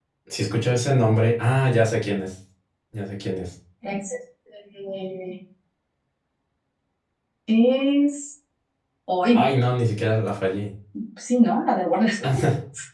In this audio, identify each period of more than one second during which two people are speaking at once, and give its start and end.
none

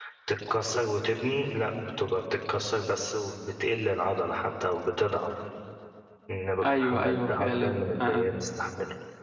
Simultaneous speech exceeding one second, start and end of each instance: 6.6-8.3

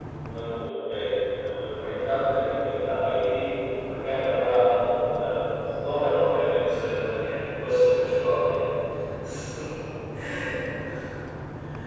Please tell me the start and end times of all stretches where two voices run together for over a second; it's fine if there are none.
none

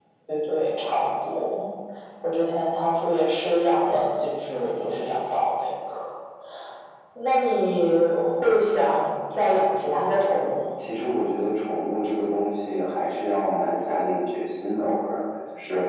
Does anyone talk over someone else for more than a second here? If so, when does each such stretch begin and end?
none

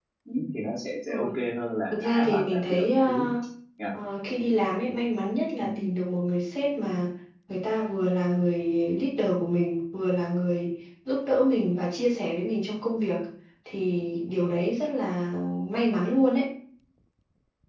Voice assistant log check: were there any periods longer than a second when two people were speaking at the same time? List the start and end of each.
1.9-3.3

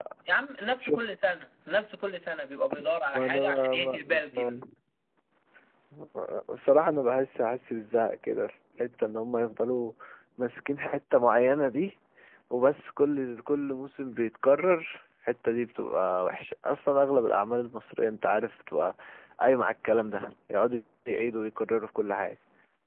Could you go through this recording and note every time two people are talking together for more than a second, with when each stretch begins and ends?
3.1-4.6

